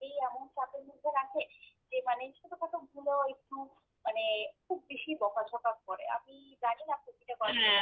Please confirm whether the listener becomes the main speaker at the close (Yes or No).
Yes